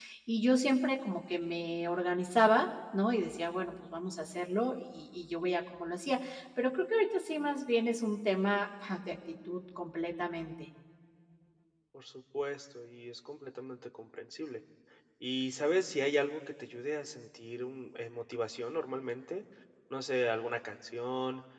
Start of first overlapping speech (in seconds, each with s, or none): none